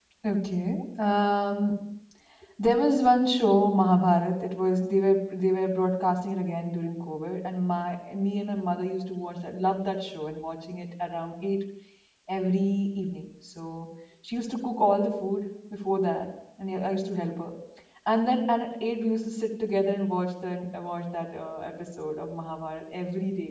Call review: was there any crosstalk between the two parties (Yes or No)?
No